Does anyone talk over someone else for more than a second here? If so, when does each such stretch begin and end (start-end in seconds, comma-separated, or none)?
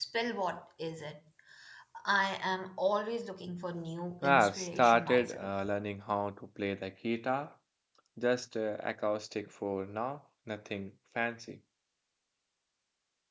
4.2-5.5